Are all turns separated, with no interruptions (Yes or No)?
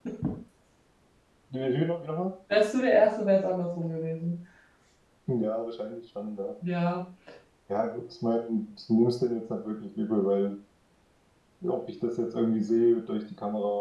Yes